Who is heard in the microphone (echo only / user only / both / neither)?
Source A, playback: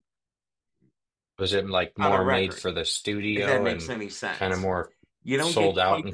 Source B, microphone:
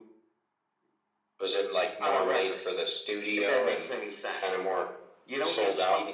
echo only